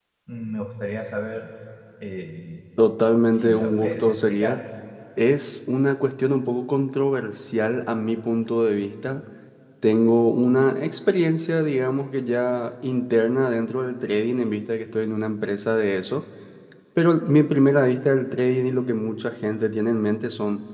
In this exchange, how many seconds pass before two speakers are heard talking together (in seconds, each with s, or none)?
3.3 s